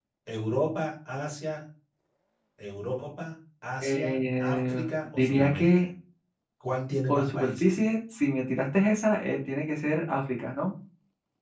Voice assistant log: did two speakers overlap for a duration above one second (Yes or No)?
Yes